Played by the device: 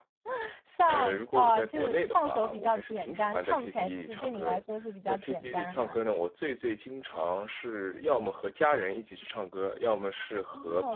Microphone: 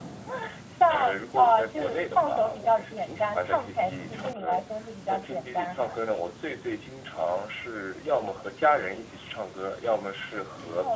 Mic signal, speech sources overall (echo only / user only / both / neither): echo only